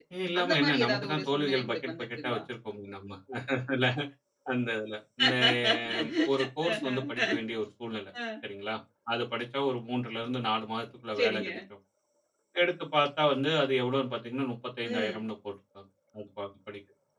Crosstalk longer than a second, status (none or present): present